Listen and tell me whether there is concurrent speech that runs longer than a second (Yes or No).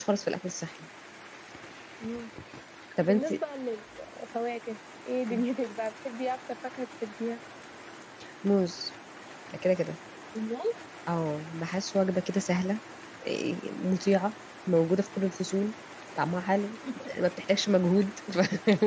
No